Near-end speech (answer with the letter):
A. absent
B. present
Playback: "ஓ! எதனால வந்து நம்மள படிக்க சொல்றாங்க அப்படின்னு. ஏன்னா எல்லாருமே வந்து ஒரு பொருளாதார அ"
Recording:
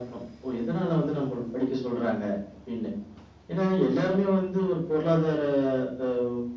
A